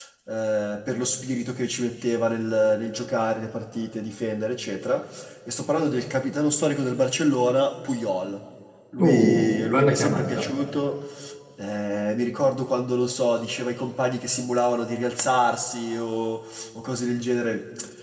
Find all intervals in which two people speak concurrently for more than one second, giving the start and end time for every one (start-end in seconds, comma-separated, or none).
9.0-10.4